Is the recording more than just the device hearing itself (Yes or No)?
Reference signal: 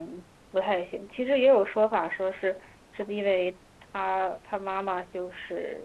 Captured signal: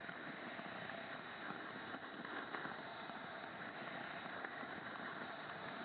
No